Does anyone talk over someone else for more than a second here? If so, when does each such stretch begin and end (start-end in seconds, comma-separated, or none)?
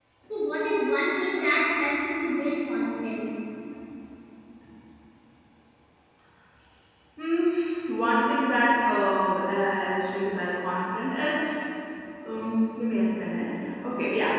none